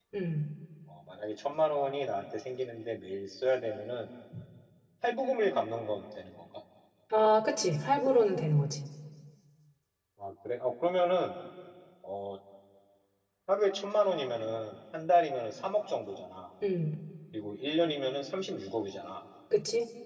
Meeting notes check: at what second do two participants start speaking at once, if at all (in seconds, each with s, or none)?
none